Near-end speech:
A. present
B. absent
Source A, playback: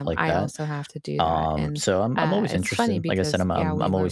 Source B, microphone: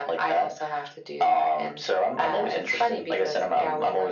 B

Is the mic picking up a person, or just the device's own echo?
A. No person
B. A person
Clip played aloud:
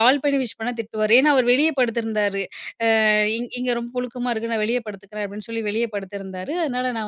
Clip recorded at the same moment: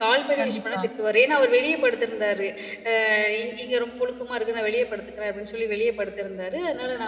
B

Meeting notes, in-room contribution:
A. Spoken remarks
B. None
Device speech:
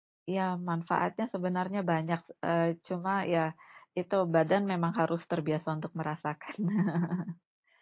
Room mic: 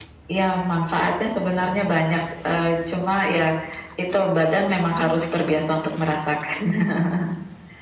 B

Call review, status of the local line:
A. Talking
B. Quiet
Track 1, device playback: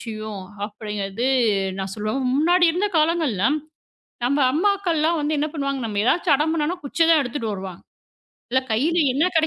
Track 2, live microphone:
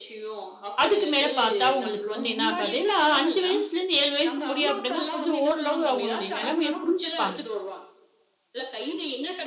A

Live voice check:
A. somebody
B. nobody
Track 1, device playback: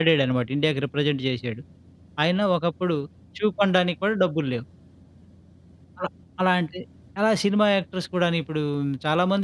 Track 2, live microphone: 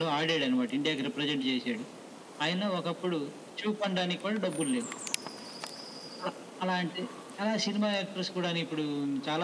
B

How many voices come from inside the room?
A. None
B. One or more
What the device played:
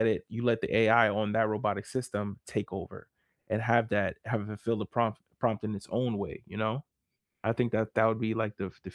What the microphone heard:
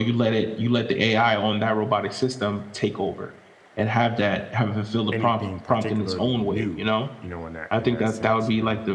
B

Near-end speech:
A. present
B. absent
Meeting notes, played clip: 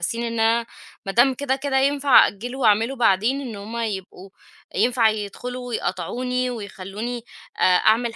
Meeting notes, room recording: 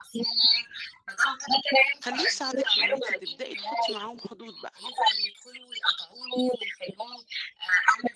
A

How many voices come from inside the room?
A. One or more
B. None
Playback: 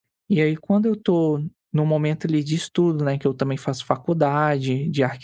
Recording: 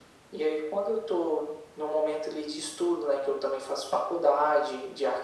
B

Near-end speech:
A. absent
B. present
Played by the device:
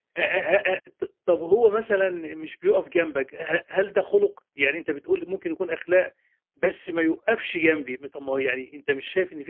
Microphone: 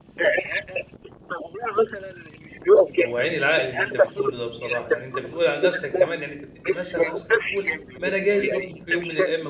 B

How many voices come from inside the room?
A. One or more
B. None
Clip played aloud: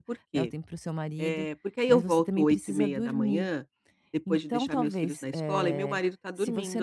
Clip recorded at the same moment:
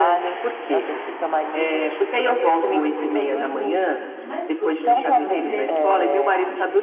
A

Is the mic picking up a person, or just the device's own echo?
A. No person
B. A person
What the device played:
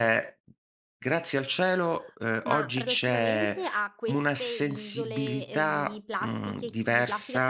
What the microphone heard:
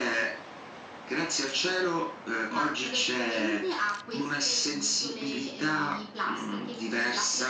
A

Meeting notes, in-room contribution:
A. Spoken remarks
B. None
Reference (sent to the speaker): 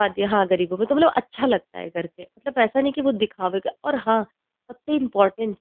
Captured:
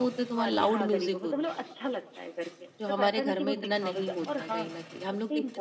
A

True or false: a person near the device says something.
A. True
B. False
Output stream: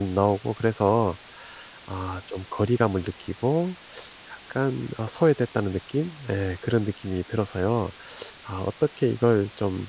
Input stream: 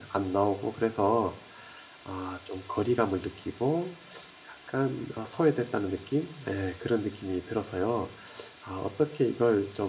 B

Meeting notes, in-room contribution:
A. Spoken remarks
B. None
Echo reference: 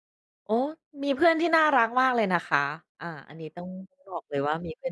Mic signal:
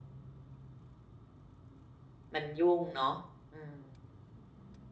A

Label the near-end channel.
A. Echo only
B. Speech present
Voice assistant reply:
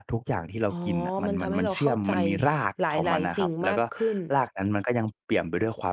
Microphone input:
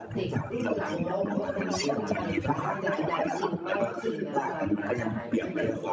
B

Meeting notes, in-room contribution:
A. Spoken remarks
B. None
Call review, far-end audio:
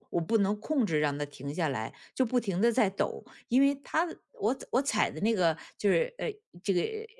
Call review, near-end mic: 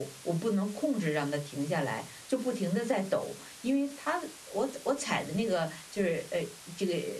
B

